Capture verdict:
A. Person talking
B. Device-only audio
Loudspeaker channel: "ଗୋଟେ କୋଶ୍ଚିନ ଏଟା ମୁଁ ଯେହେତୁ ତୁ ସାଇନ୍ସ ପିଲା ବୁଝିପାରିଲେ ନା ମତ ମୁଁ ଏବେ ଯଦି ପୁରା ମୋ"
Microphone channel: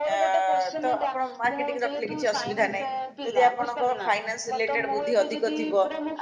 A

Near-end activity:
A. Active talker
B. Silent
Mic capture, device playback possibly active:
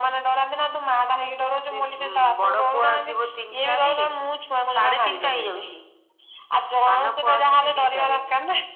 B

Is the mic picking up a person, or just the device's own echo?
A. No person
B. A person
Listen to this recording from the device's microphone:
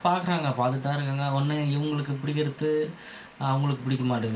B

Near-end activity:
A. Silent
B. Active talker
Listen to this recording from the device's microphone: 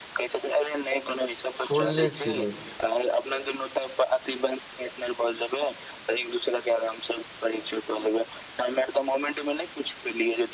B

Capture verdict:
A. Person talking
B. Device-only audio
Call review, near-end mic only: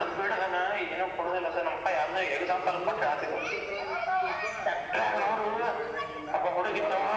A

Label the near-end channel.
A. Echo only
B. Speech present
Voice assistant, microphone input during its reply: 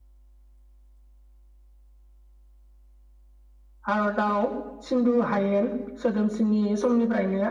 B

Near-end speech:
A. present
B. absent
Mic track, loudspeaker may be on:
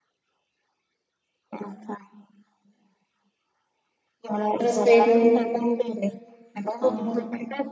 A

